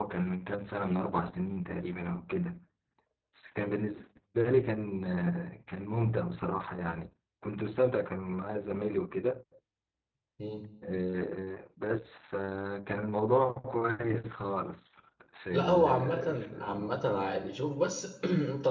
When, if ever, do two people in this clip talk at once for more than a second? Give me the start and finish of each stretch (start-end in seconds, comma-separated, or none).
15.5-16.9